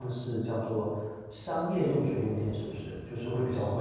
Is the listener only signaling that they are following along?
No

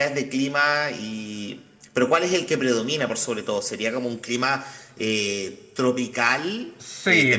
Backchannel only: No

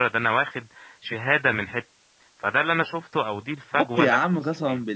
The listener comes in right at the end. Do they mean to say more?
Yes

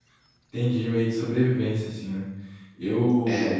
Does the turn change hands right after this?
No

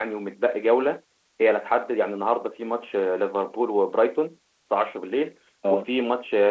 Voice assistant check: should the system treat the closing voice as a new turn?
No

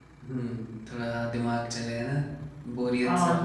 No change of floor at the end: No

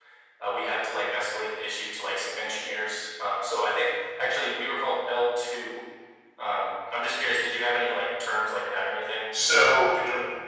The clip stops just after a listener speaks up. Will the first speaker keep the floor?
No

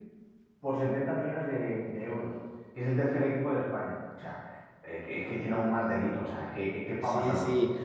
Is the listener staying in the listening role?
No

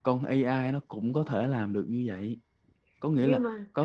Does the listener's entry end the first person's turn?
No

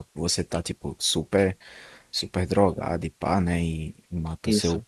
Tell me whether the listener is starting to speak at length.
No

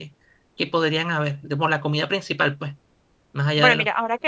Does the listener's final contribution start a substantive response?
Yes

